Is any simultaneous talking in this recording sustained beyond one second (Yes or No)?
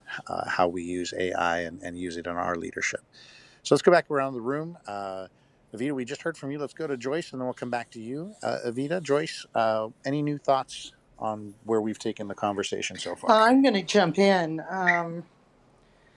No